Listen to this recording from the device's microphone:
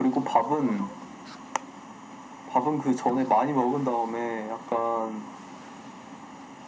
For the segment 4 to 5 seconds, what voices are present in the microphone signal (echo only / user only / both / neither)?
echo only